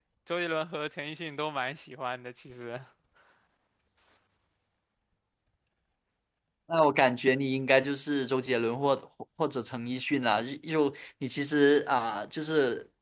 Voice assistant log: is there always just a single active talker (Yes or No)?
Yes